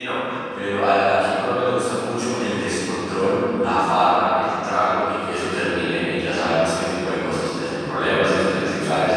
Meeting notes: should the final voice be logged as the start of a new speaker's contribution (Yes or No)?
No